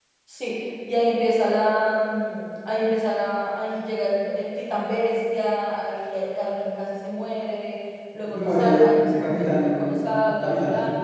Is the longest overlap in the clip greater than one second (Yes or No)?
Yes